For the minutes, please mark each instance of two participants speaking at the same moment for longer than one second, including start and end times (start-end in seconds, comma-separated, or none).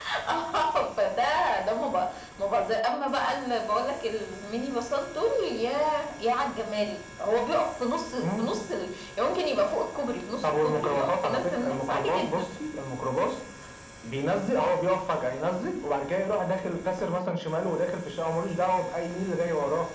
10.4-12.4